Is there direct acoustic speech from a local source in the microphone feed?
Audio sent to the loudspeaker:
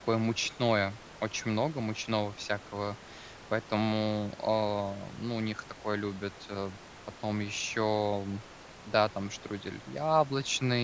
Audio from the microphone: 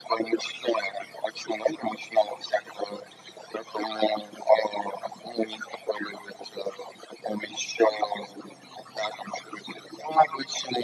No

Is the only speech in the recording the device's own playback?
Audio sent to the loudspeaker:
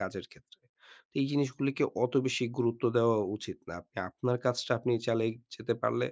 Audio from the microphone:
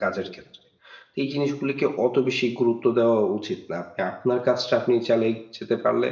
Yes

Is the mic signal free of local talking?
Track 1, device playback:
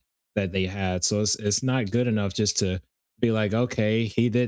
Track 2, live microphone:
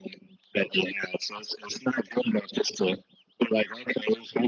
Yes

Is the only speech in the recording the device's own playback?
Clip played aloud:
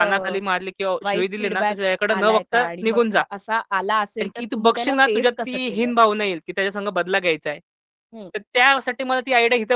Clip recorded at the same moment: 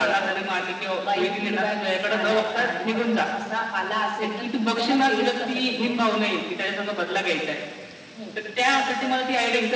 No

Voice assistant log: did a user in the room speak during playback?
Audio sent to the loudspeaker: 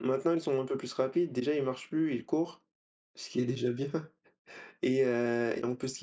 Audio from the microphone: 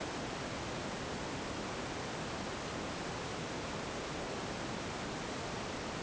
No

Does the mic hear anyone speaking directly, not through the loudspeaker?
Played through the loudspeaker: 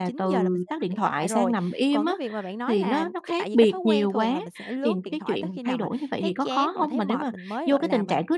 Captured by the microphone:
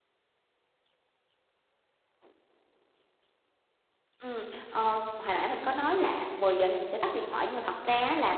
Yes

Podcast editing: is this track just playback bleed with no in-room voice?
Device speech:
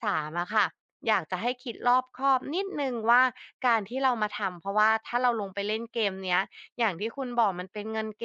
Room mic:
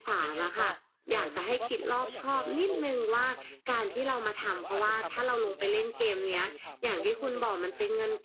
No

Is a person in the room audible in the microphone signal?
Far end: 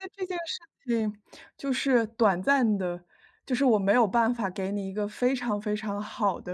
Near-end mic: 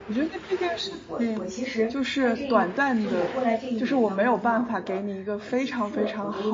Yes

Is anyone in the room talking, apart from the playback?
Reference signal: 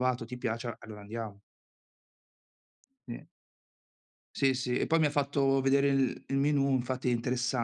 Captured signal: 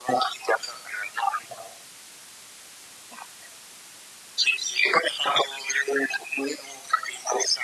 No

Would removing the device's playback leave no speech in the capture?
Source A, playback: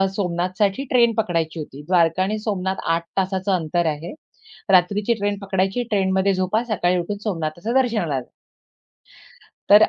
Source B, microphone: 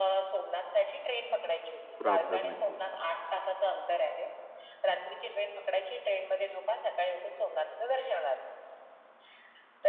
No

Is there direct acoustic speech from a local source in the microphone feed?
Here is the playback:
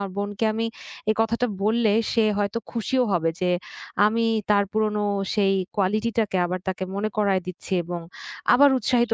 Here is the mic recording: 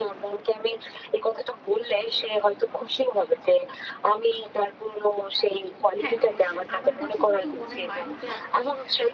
Yes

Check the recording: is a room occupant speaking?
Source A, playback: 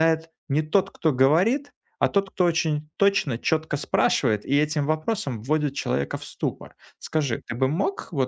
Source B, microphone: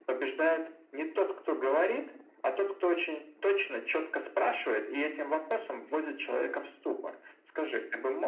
No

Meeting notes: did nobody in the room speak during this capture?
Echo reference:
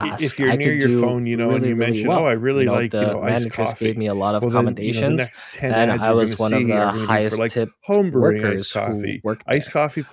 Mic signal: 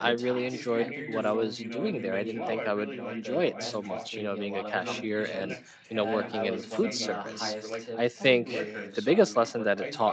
No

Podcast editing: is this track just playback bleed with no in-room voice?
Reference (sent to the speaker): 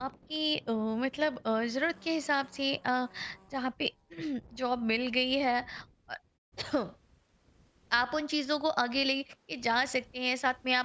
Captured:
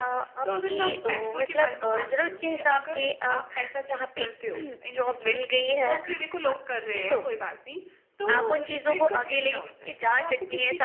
No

